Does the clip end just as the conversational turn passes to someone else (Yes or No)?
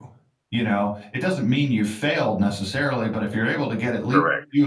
No